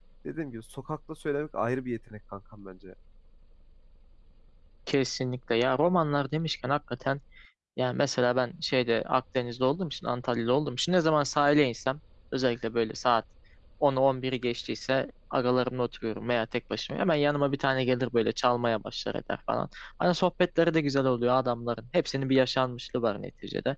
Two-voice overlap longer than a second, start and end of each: none

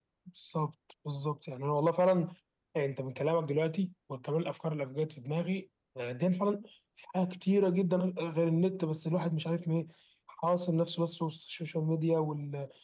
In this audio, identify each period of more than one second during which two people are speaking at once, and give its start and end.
none

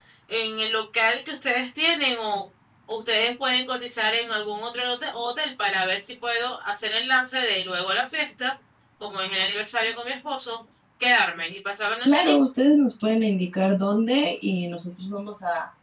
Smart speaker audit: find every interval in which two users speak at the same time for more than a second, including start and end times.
none

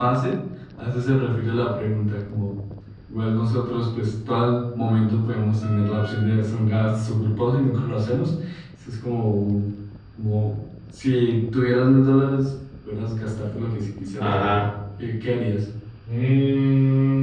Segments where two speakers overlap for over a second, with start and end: none

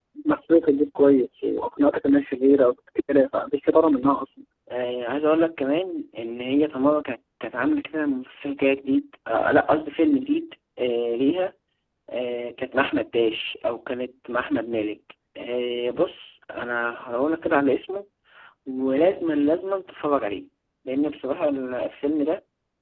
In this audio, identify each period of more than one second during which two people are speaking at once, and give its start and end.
none

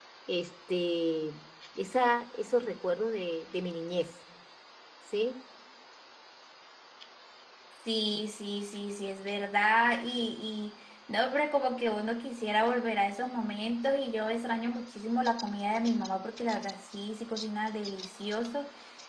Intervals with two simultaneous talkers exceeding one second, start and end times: none

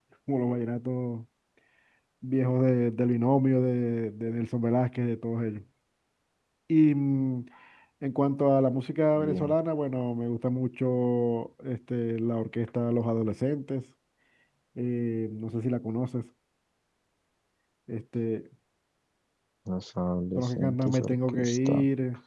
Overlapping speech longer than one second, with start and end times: 20.4-21.8

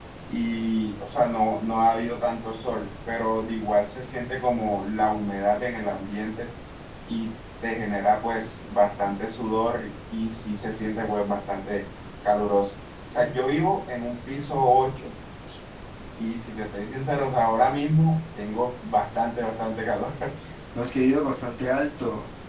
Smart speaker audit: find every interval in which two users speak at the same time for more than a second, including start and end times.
none

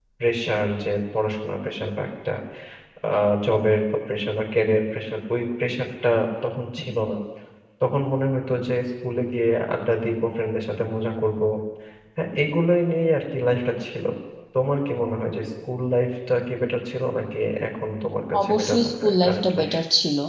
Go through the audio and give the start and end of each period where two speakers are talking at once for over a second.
18.4-19.7

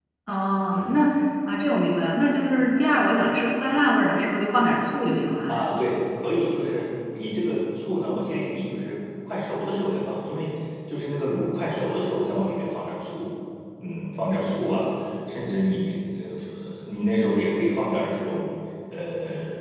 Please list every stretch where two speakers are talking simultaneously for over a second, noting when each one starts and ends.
none

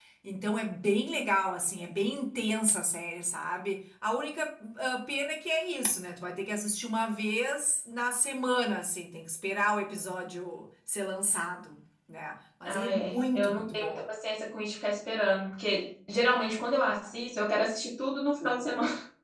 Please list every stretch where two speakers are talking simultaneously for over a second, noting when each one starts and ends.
12.7-14.0

